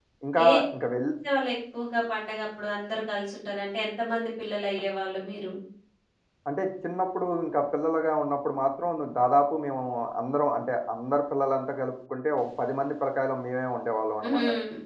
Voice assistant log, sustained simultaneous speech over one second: none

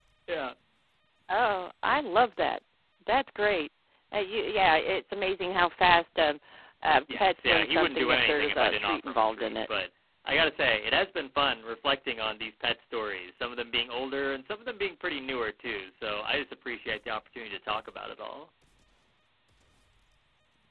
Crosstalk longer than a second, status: present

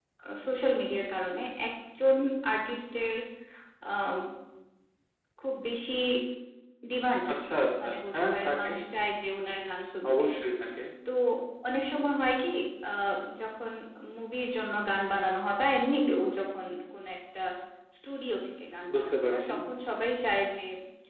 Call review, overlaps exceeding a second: present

